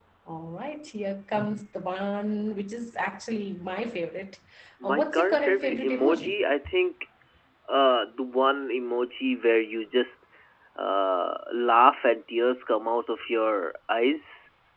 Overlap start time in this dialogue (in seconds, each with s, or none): 4.8 s